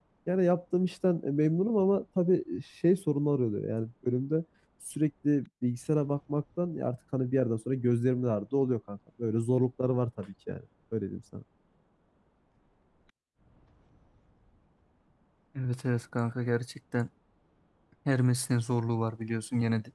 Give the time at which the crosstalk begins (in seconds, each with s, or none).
none